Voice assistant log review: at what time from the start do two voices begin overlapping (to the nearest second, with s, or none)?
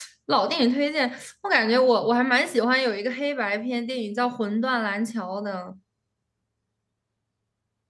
none